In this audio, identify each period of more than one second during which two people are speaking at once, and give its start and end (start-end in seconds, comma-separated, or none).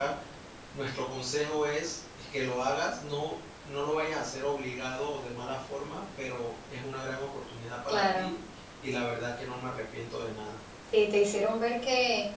none